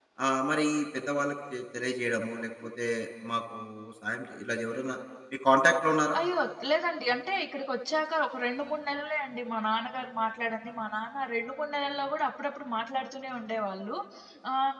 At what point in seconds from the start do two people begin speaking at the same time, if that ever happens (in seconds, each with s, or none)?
none